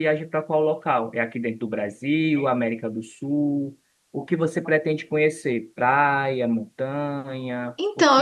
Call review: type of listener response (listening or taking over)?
taking over